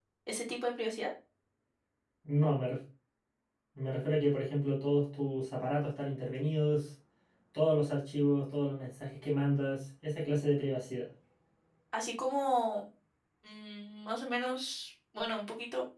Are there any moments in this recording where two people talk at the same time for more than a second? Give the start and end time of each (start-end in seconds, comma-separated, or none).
none